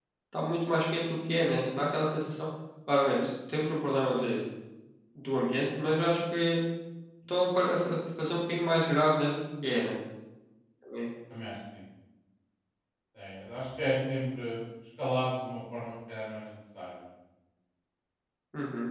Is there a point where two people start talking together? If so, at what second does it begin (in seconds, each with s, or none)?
none